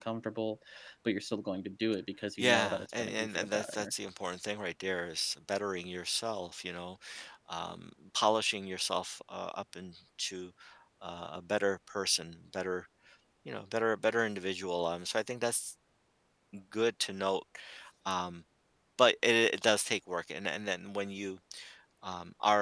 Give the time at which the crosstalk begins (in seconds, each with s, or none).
2.4 s